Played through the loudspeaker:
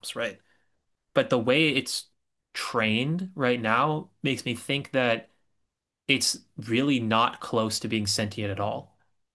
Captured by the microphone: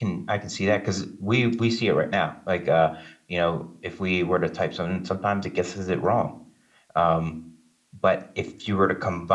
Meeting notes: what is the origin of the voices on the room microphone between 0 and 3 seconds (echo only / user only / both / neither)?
user only